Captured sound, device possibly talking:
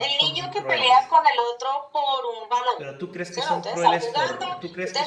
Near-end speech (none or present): present